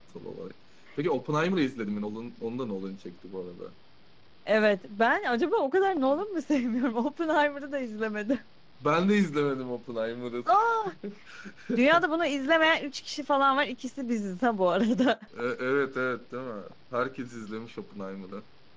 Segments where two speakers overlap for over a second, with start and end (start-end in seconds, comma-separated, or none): none